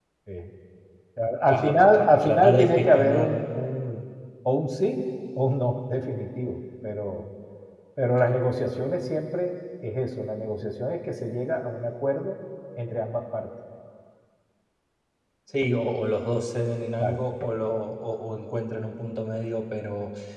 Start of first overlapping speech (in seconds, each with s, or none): 1.5 s